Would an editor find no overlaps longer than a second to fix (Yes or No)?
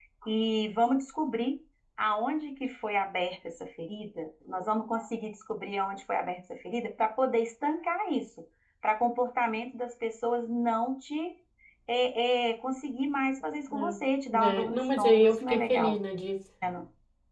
No